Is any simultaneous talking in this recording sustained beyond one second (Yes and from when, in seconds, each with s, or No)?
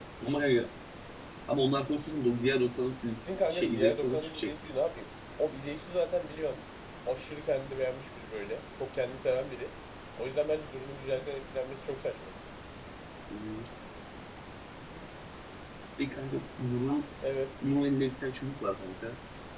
Yes, from 3.3 s